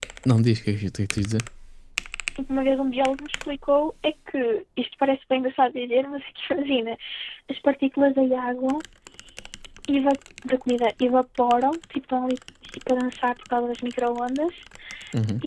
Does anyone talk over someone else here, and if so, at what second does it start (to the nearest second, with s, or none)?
none